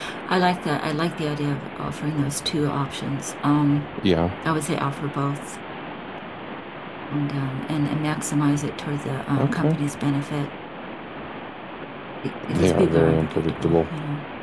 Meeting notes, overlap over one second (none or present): present